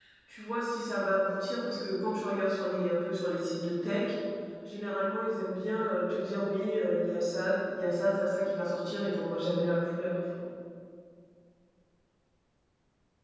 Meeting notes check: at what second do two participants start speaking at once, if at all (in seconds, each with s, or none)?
none